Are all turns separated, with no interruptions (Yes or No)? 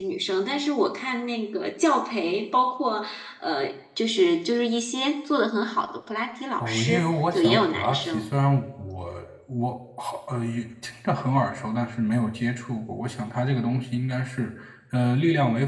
No